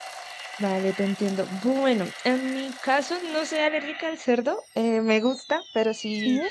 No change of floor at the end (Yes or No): Yes